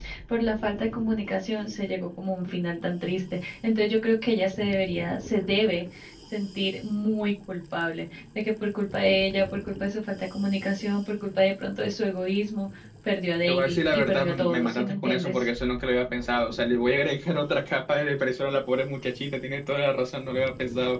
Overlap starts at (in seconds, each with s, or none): 13.5 s